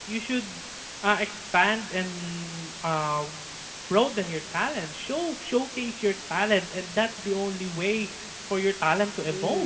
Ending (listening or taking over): taking over